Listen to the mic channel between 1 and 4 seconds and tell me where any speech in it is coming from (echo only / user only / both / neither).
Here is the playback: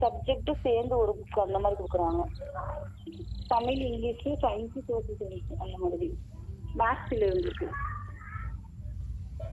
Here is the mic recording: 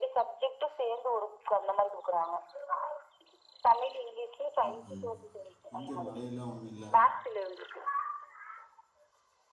echo only